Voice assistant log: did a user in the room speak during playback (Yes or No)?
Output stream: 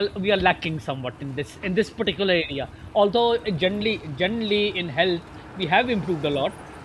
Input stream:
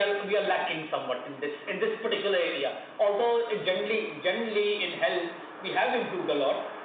No